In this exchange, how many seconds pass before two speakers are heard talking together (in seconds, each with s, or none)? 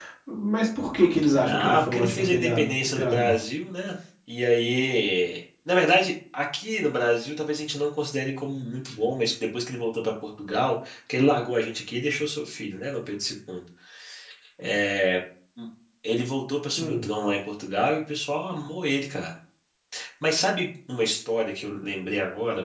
1.4 s